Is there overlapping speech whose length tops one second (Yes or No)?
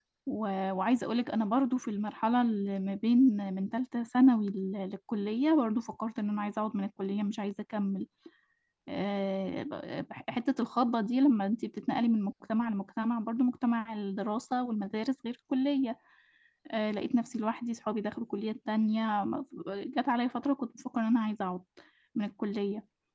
No